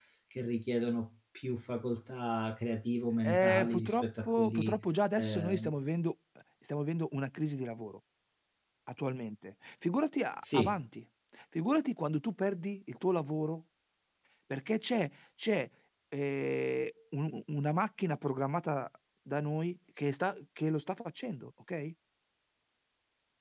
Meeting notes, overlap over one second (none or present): present